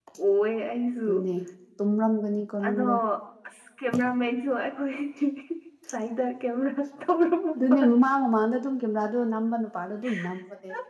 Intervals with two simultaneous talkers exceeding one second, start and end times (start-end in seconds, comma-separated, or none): none